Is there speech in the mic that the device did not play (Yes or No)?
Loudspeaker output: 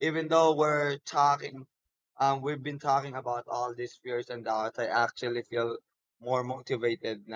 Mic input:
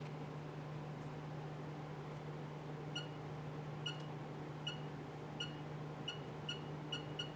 No